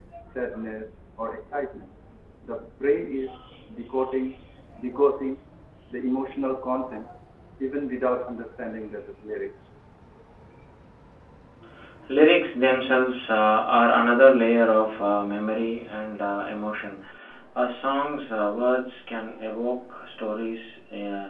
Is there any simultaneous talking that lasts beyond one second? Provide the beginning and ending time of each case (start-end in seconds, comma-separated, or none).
none